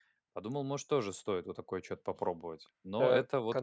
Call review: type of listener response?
taking over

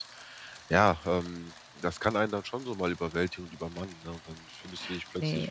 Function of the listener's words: listening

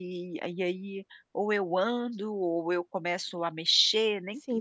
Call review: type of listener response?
taking over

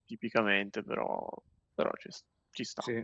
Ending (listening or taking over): taking over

